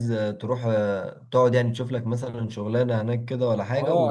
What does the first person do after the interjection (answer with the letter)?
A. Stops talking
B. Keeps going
A